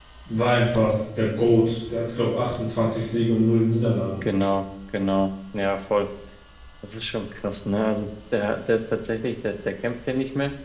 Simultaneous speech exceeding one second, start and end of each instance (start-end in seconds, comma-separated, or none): none